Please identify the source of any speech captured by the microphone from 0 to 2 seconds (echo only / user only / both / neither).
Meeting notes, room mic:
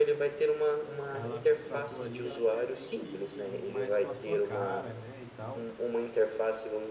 both